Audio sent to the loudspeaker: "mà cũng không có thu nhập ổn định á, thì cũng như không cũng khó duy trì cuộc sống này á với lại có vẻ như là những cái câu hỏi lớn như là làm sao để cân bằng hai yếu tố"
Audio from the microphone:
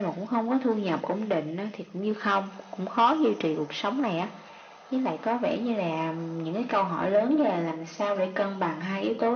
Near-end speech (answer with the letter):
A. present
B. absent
B